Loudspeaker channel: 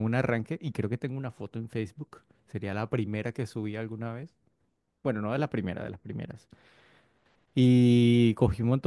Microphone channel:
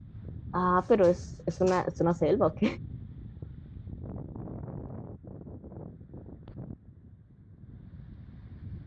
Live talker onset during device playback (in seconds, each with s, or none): 0.5 s